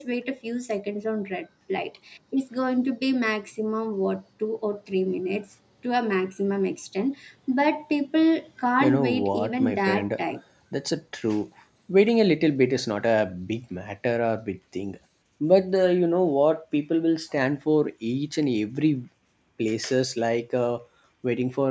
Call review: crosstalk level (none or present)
present